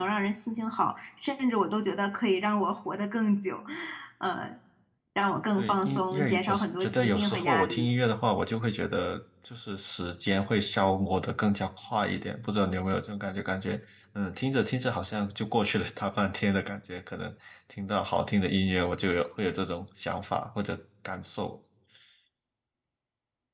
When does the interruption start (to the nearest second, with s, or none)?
6 s